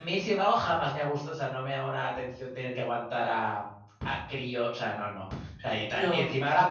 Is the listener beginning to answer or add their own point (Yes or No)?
No